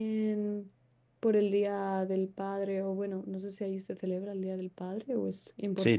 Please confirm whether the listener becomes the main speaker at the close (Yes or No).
Yes